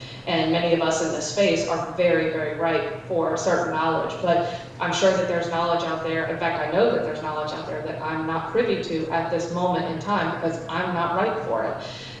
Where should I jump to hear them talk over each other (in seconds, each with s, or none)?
none